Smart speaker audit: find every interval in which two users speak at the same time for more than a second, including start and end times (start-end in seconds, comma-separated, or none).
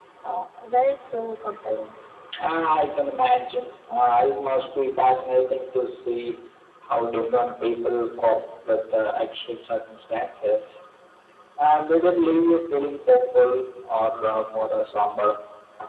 none